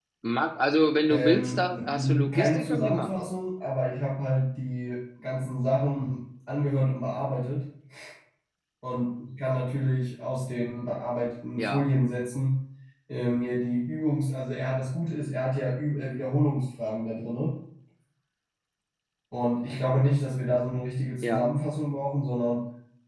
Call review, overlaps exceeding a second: present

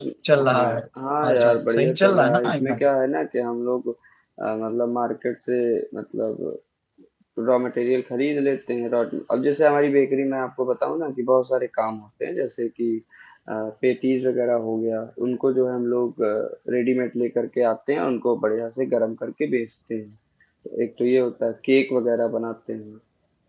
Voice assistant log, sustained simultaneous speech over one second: present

